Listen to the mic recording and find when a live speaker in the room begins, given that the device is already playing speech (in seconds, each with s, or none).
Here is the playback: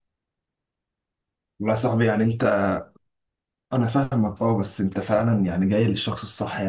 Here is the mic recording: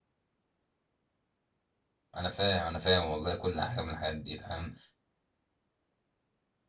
2.1 s